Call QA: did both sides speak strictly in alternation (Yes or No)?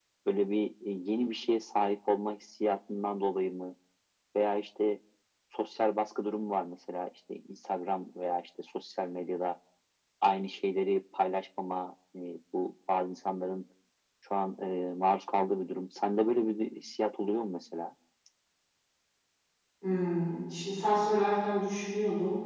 Yes